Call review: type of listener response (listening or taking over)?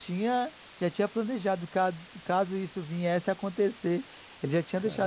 listening